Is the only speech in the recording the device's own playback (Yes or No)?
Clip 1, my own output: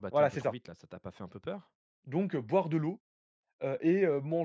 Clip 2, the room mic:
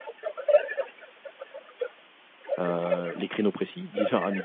No